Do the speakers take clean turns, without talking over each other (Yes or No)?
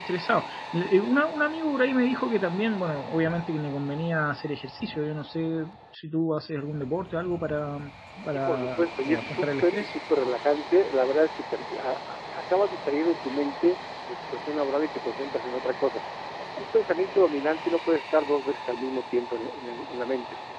No